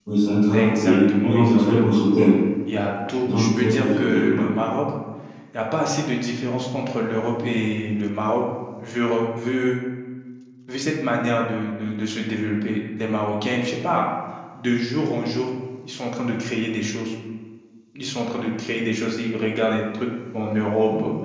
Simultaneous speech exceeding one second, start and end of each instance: 0.5-1.9, 3.2-4.5

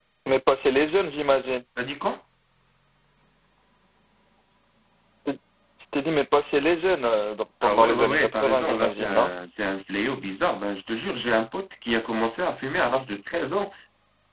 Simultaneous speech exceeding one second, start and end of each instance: 7.6-9.3

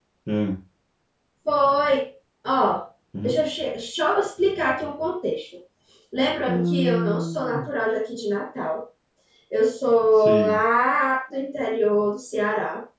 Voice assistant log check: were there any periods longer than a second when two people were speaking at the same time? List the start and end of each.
6.5-7.7

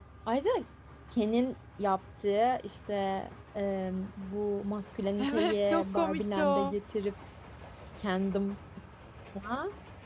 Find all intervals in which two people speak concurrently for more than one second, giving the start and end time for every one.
5.2-6.7

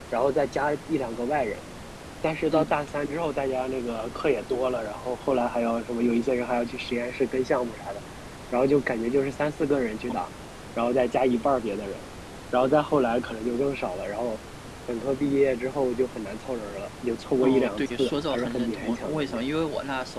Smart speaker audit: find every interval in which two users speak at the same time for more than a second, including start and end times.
17.4-19.4

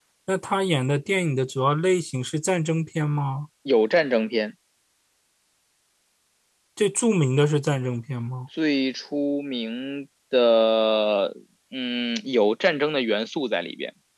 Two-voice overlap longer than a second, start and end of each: none

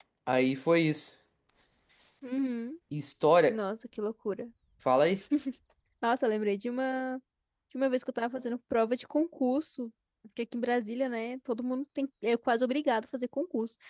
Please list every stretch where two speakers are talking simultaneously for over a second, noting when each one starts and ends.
none

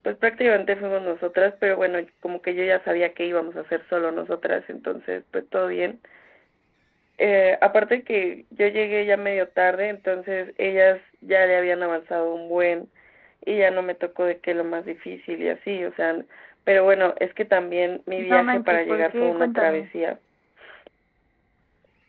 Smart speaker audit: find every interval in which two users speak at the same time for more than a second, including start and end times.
18.3-19.9

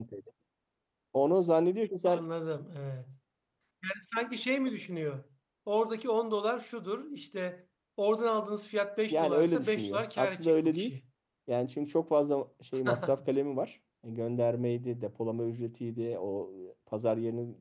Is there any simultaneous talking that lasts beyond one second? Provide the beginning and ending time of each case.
9.1-10.9

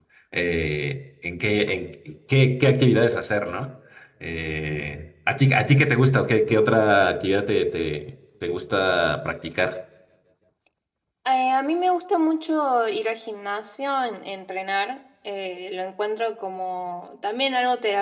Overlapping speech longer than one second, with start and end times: none

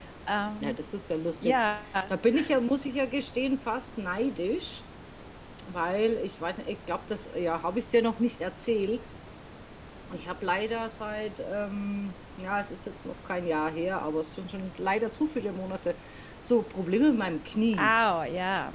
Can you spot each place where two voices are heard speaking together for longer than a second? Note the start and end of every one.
none

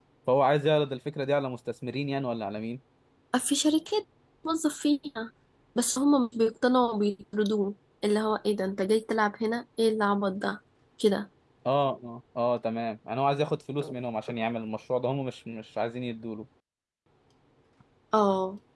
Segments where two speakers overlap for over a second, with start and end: none

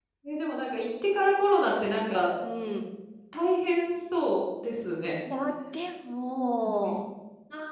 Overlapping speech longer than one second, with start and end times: none

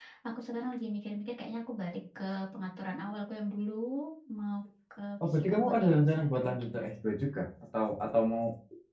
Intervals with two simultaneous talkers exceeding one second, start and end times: 5.2-6.9

